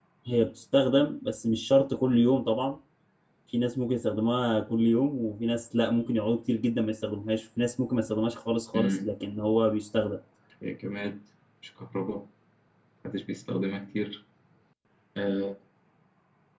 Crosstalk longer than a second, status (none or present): none